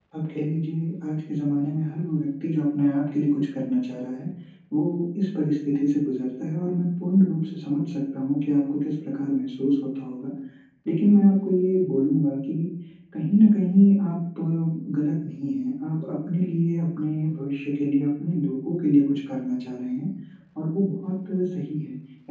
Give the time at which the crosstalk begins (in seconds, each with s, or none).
none